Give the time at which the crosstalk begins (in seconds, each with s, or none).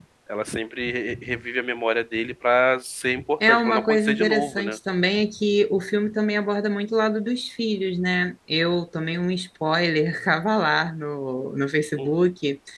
3.5 s